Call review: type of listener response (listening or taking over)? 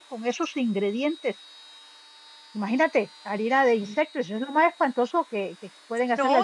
taking over